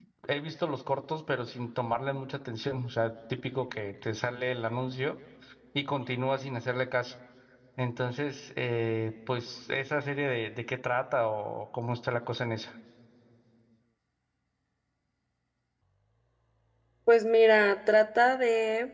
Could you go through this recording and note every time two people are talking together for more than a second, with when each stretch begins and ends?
none

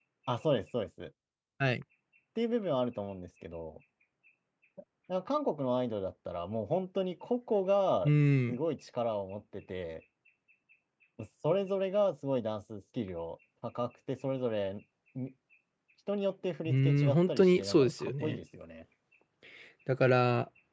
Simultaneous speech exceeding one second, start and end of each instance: 16.7-18.4

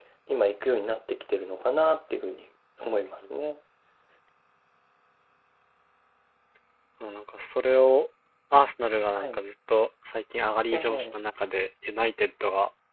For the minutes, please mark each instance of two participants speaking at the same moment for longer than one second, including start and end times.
none

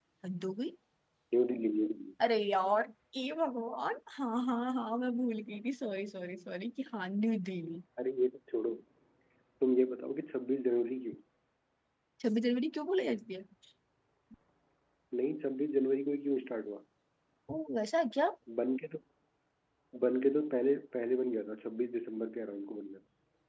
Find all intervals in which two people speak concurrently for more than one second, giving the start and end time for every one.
none

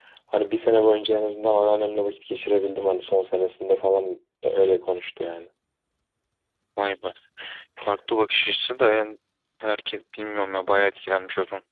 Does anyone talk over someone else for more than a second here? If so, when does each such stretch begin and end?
none

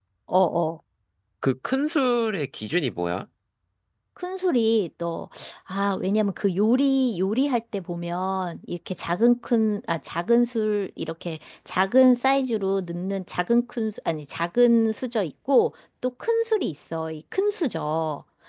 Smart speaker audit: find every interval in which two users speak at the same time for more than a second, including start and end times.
none

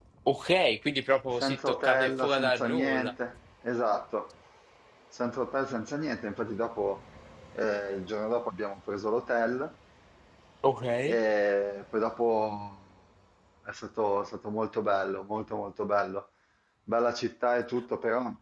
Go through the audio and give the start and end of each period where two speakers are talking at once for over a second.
1.4-3.1

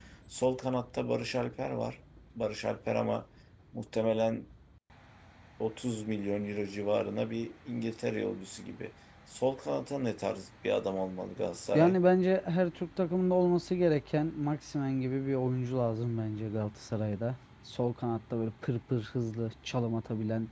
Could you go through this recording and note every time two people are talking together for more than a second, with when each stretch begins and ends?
none

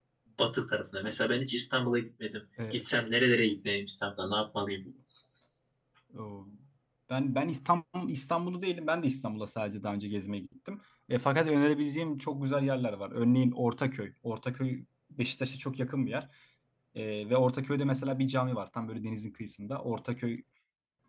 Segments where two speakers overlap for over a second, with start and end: none

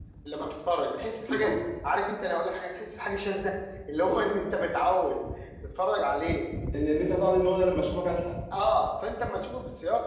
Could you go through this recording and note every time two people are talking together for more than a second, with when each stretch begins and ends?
none

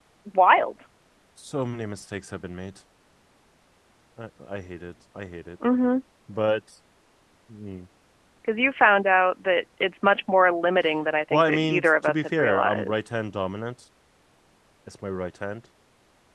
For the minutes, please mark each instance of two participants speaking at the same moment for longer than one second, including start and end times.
11.3-13.1

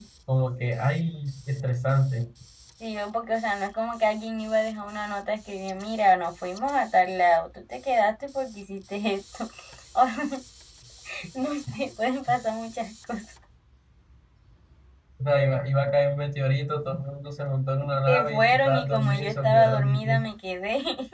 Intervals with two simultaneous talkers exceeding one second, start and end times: 18.1-20.2

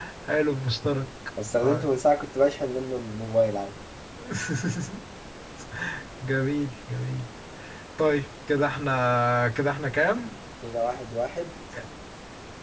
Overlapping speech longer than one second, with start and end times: none

